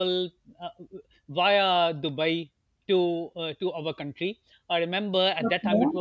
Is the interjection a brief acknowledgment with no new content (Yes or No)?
Yes